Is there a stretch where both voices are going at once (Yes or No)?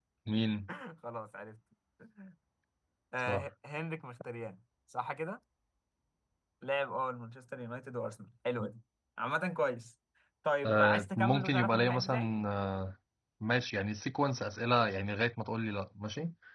Yes